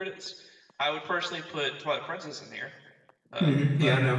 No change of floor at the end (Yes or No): No